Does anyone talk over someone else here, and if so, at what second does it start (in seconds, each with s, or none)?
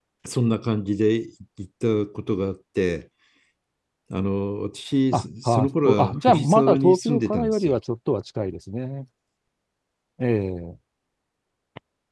5.1 s